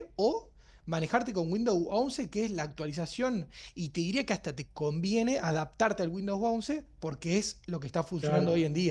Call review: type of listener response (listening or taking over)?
taking over